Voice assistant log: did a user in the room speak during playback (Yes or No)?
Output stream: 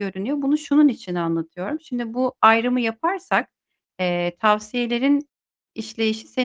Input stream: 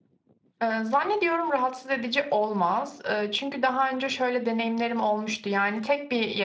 Yes